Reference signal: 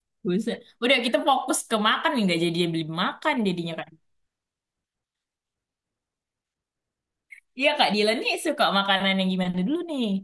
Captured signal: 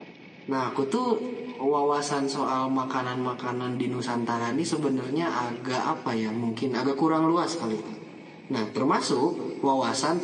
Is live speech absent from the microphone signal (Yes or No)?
No